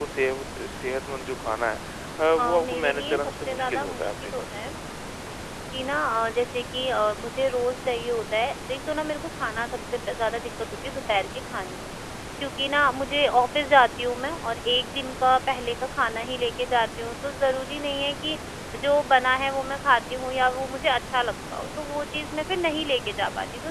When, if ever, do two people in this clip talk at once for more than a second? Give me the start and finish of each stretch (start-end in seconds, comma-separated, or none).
2.4-4.4